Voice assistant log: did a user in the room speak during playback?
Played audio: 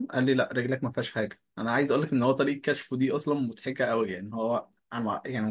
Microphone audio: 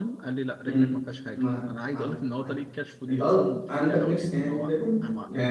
Yes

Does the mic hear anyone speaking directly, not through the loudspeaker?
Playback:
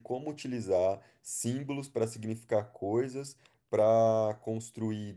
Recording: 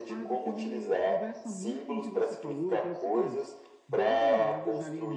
Yes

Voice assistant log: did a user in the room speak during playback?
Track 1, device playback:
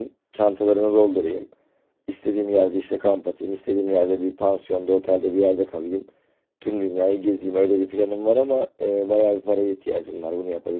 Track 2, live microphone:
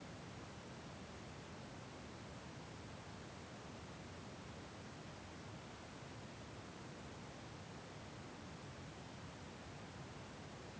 No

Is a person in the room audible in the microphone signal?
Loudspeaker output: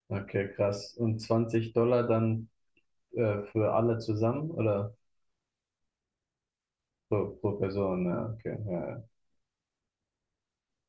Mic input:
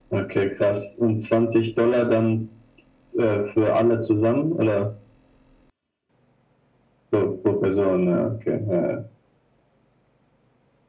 No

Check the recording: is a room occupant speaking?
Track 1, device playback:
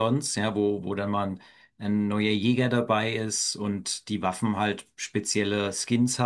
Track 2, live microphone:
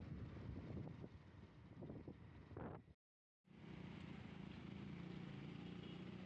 No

